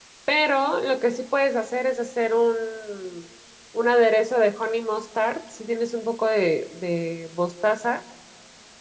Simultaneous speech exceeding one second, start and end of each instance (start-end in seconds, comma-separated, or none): none